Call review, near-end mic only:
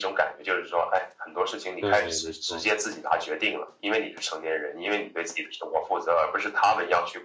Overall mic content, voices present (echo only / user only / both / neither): both